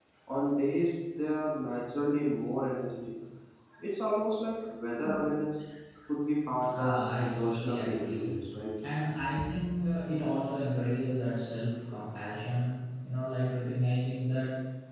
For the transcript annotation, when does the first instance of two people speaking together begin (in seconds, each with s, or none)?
6.7 s